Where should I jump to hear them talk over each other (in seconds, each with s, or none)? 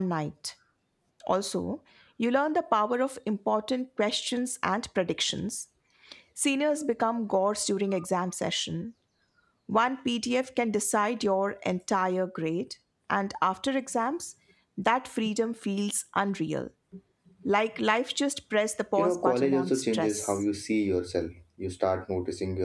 19.0 s